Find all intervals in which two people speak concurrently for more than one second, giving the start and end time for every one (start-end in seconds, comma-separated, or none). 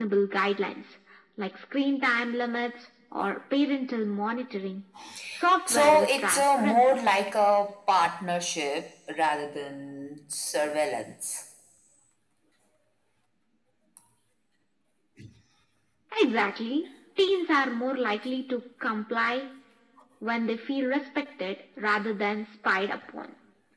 5.7-7.0